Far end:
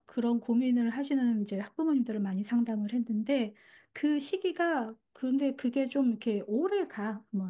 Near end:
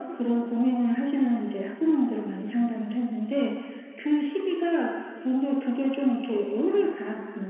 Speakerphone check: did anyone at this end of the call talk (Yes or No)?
No